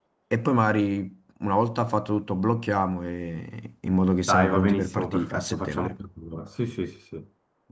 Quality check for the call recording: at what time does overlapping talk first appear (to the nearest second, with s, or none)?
4 s